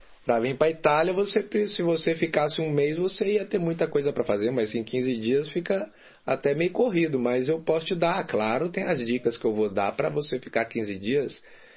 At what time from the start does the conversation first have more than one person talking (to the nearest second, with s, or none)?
none